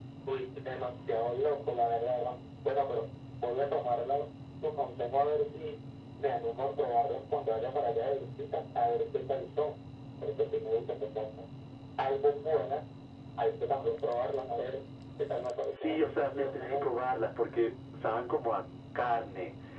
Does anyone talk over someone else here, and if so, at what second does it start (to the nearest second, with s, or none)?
16 s